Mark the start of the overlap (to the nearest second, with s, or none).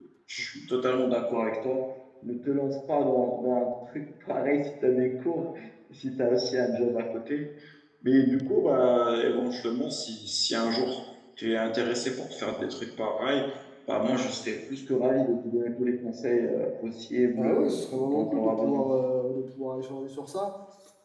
17 s